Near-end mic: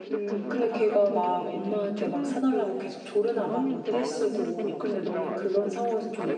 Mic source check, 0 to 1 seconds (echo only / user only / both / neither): both